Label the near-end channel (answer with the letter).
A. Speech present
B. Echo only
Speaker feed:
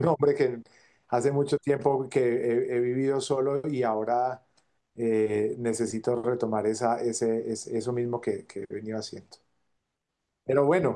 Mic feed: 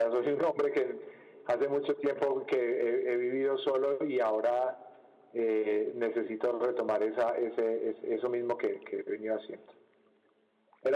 B